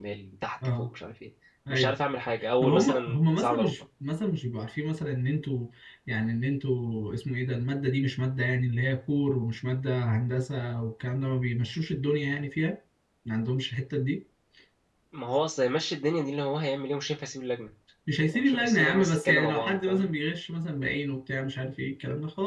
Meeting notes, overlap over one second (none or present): present